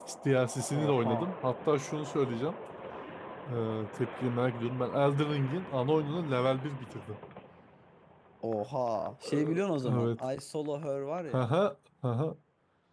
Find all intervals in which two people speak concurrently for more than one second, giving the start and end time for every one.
none

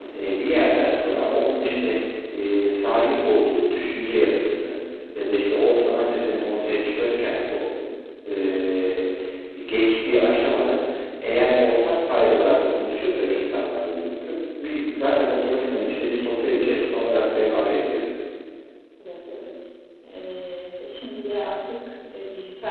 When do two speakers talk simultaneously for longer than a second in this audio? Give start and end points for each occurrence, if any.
none

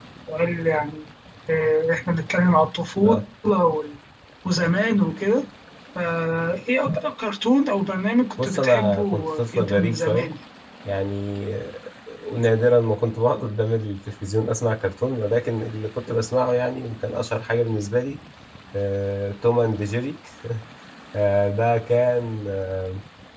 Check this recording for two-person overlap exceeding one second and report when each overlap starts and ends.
8.4-10.3

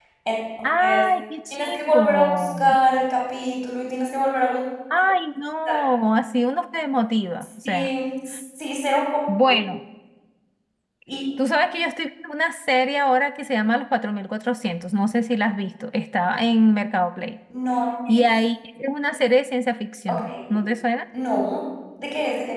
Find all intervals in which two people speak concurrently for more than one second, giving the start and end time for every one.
1.5-2.8

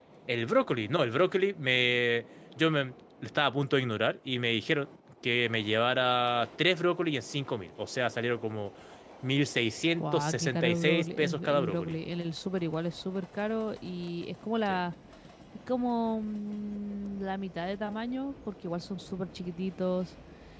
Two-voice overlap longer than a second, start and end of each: 10.0-12.0

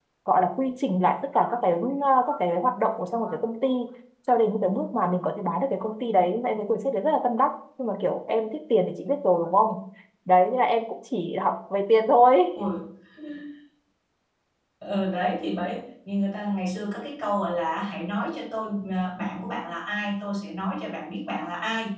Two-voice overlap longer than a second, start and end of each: none

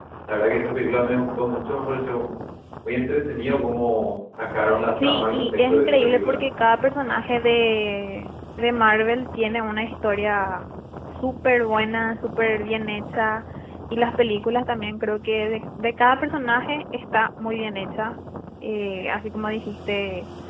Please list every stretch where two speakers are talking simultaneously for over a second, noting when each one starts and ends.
5.0-6.4

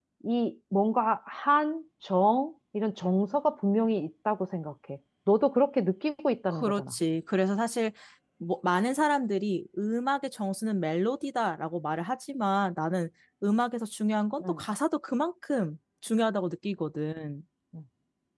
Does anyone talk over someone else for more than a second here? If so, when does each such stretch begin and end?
none

